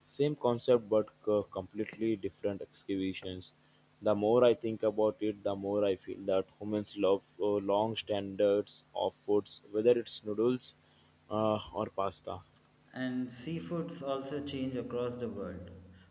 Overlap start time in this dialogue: none

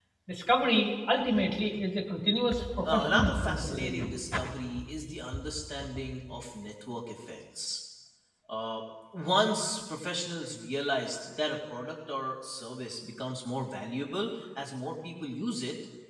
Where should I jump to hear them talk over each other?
2.8 s

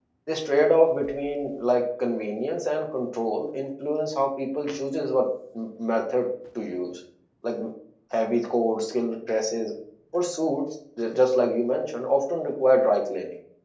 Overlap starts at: none

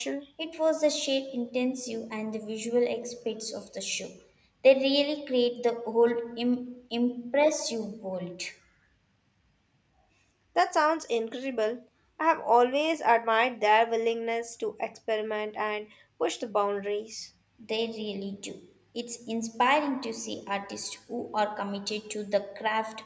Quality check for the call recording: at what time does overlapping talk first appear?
none

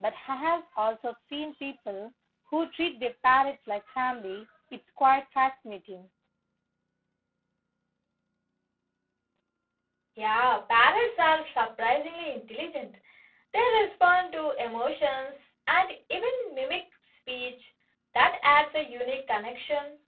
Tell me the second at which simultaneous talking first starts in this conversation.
none

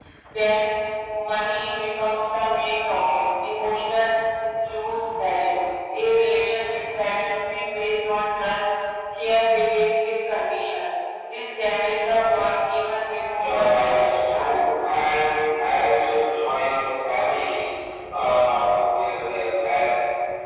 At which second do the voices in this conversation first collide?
13.3 s

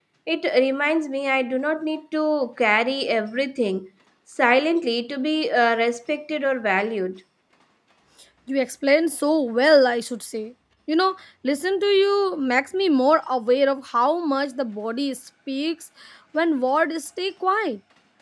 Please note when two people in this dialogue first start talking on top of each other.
none

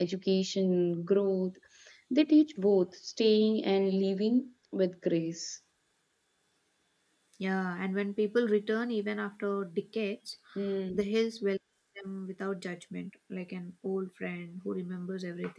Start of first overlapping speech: none

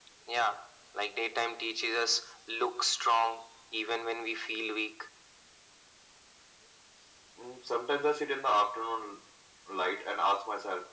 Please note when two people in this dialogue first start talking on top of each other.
none

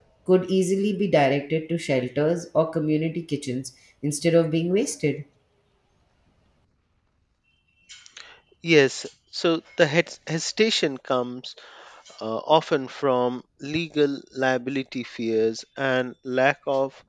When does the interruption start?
none

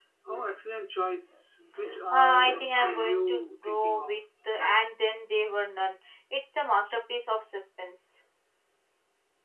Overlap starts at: 2.1 s

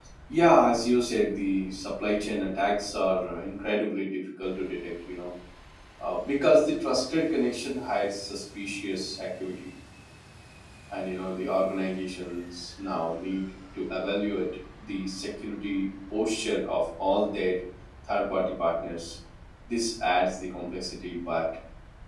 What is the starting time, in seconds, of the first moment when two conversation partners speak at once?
none

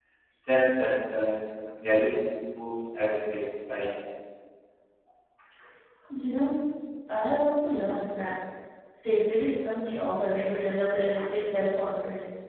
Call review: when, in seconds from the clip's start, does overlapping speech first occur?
none

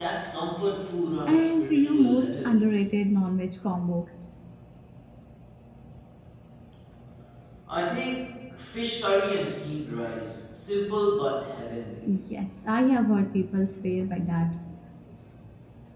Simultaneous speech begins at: 1.3 s

